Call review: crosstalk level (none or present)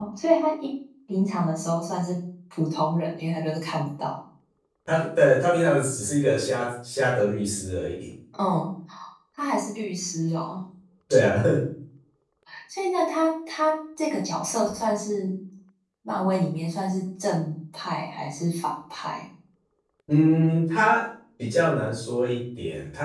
none